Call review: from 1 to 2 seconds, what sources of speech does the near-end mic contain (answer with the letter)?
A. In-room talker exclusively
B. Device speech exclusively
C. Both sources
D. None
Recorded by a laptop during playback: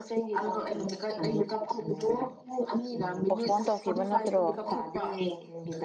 B